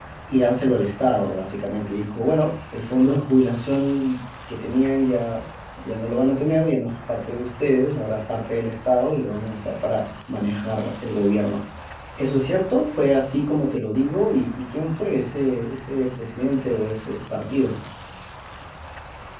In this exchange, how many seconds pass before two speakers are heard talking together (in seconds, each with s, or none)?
none